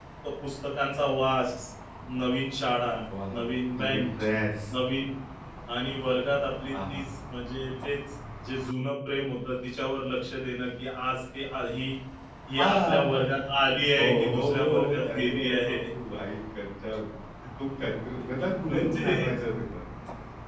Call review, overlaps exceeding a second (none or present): present